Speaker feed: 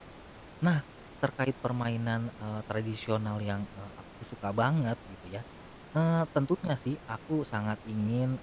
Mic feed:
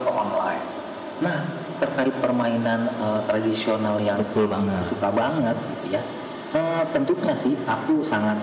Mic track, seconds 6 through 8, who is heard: echo only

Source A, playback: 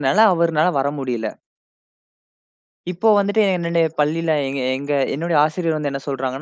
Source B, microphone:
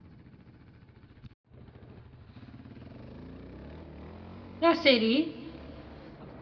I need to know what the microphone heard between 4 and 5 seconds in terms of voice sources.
user only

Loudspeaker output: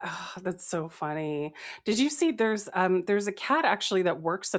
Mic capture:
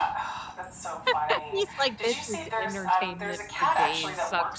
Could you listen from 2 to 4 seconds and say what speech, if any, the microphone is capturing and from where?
both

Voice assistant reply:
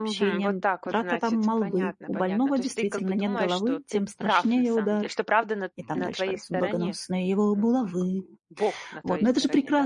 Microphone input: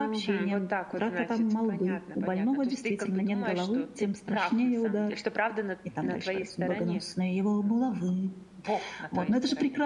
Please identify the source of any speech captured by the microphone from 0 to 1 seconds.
echo only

